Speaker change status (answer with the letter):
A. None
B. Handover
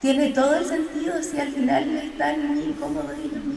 B